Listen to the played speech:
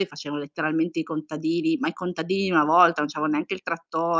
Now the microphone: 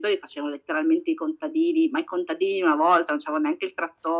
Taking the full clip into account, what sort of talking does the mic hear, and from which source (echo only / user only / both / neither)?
echo only